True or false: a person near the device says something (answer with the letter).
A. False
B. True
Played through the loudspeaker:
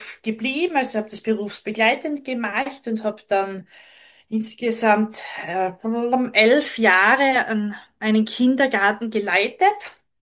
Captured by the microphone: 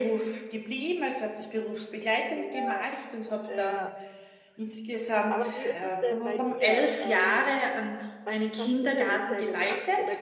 B